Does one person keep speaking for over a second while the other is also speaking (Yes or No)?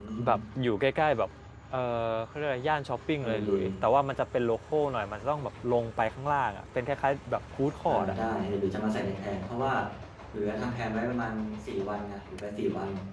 No